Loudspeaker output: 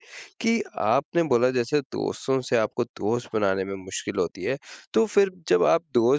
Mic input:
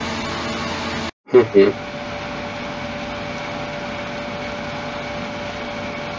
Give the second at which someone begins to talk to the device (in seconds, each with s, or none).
1.3 s